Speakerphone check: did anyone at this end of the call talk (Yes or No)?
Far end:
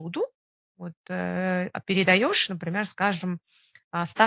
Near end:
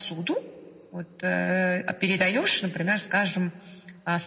No